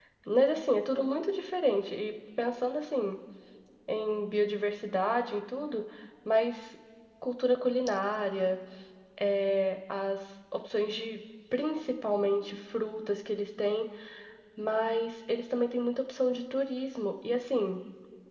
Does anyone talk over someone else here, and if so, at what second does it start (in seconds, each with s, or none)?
none